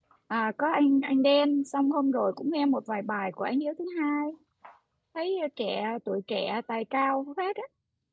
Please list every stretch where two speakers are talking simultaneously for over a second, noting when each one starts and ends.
none

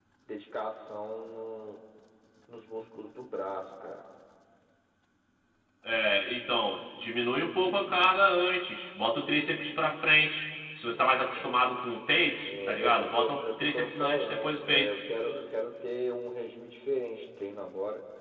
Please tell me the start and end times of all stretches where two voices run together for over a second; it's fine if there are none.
12.4-15.0

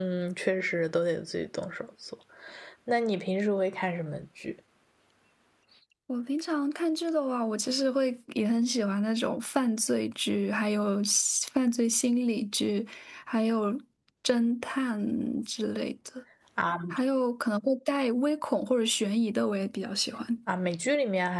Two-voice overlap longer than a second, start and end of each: none

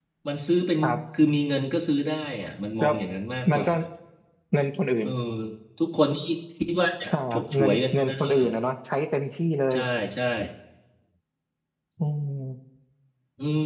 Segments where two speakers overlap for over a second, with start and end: 7.1-8.5

